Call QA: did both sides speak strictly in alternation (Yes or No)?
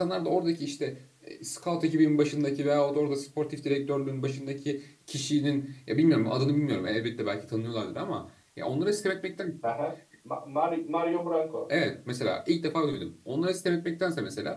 Yes